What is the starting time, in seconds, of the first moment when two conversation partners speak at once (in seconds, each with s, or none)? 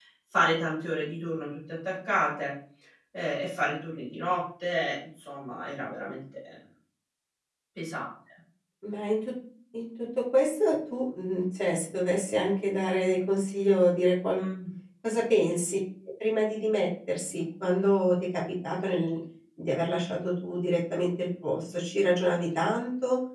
none